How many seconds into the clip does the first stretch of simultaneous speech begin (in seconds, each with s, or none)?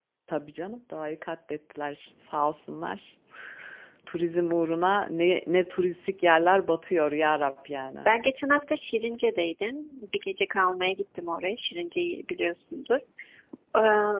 none